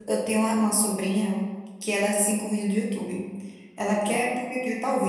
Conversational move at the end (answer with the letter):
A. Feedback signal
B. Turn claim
A